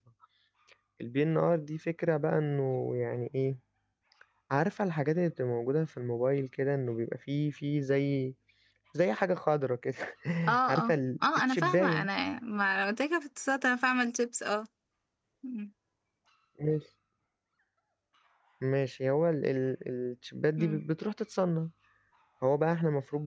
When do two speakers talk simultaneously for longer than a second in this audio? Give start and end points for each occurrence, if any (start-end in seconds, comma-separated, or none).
10.7-12.1